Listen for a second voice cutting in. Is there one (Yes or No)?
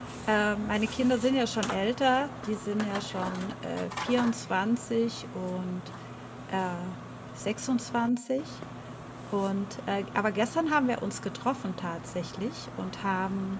No